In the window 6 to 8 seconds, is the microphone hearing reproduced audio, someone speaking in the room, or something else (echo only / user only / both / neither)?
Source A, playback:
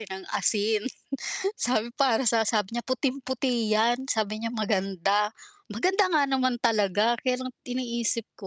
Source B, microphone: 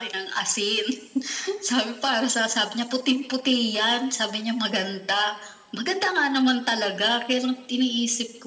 echo only